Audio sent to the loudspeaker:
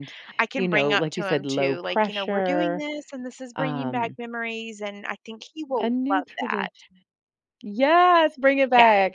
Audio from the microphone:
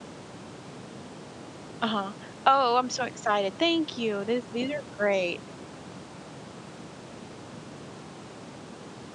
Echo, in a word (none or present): none